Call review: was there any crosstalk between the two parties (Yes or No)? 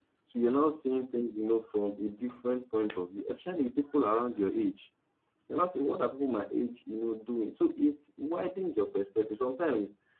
No